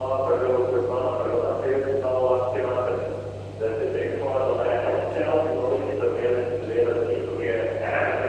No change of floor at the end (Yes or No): No